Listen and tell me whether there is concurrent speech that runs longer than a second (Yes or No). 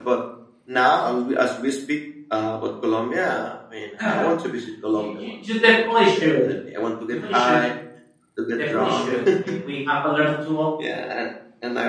Yes